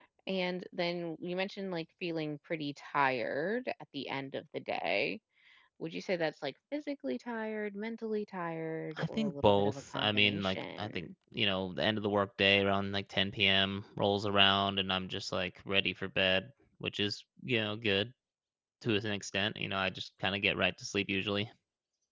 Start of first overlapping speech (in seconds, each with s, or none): 9.0 s